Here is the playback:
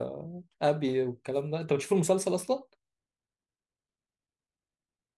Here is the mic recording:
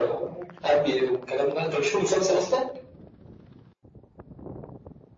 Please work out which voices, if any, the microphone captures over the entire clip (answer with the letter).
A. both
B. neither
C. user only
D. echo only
D